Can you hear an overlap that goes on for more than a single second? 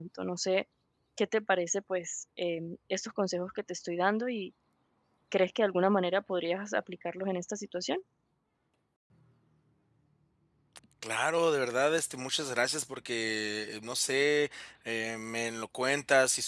No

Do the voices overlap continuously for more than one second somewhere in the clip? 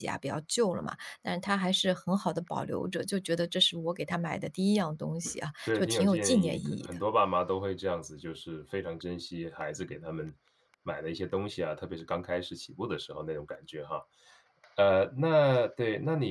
Yes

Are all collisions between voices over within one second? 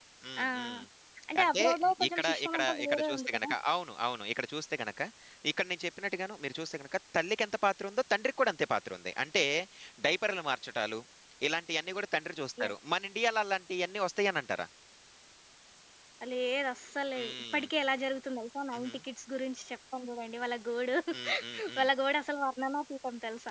No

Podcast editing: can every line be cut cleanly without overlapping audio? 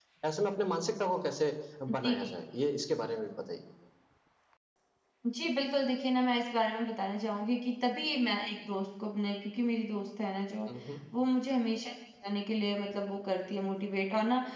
Yes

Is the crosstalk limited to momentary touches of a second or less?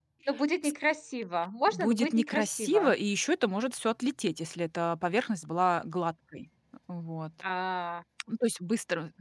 No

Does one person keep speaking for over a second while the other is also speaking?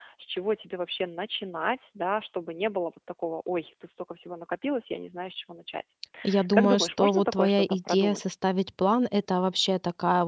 Yes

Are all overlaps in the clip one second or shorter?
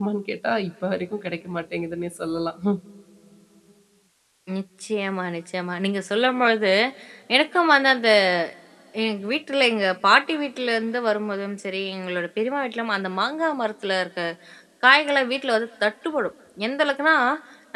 Yes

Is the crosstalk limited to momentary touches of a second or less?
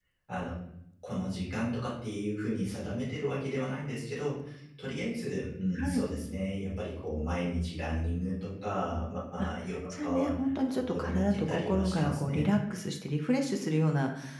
No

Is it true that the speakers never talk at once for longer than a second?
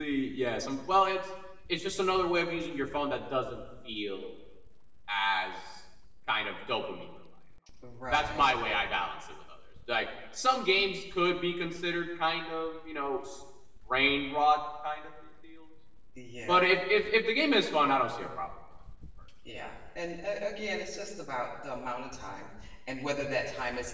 Yes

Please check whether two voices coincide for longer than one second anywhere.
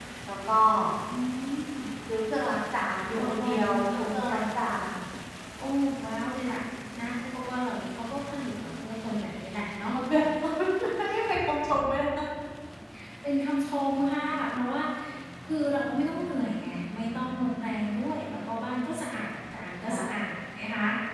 Yes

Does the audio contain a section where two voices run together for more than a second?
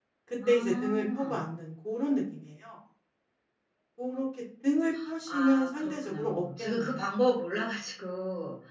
Yes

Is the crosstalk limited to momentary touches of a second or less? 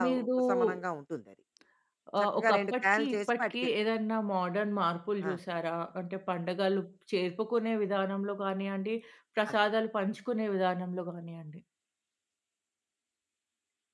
No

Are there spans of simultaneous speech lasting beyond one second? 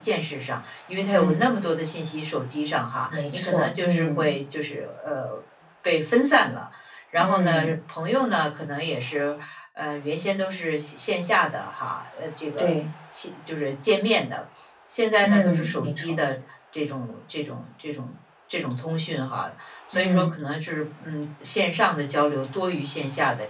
Yes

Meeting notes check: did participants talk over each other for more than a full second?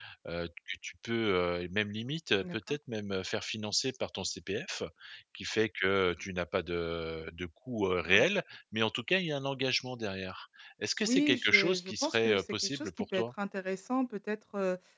Yes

